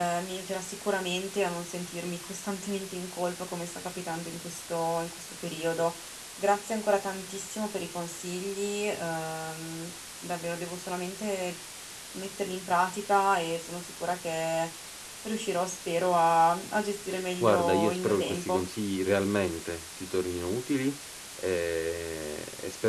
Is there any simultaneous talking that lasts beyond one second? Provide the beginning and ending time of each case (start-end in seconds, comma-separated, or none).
17.4-18.7